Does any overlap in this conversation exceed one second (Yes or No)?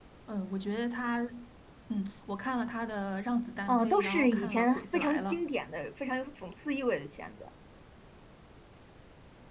Yes